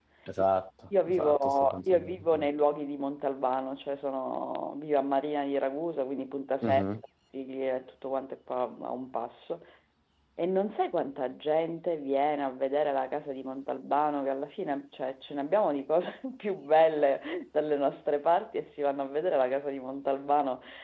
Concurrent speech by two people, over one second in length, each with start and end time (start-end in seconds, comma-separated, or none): 1.1-2.5